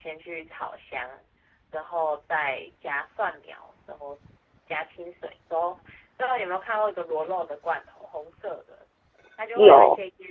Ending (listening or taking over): listening